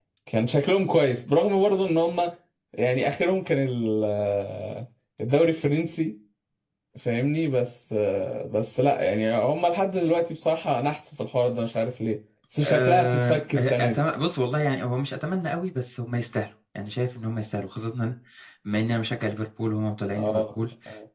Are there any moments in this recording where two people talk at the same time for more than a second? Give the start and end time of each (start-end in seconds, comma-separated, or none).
12.6-14.0